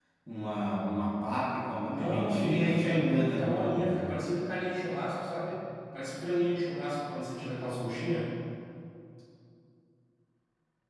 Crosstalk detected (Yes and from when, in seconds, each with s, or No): Yes, from 1.9 s